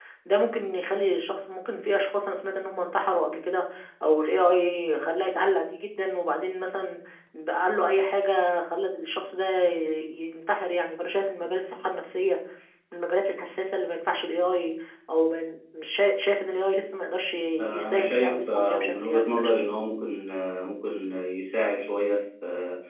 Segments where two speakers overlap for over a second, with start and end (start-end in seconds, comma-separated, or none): 17.6-19.7